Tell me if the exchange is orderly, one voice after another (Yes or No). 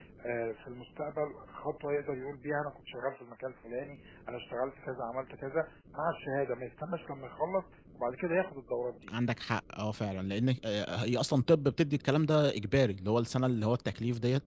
Yes